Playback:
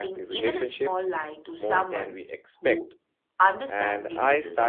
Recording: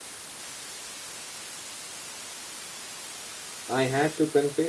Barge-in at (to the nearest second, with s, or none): 4 s